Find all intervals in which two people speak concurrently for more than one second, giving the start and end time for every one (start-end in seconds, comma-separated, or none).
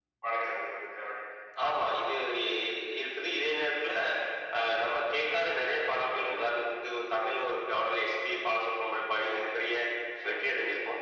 none